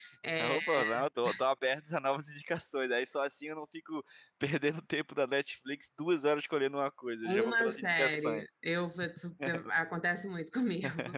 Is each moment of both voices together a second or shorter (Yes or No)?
No